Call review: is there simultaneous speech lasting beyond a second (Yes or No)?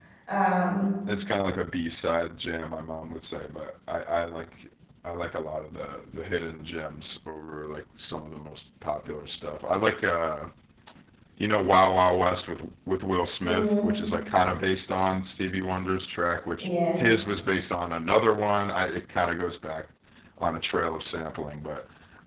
No